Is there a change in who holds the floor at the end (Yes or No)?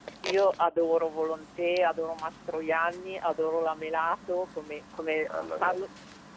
No